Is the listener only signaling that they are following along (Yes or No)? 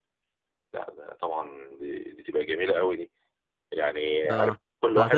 No